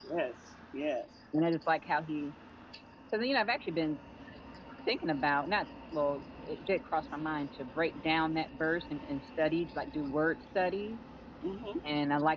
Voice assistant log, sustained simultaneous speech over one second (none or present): none